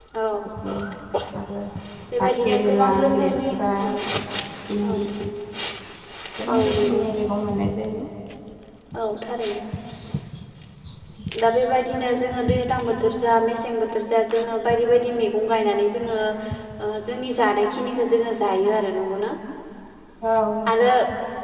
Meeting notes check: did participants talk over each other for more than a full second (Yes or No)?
Yes